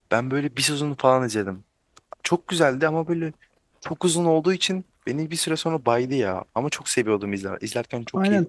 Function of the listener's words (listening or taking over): taking over